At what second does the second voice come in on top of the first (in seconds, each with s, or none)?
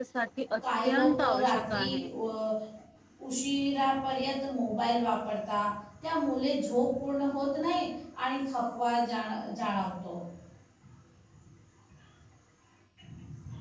0.8 s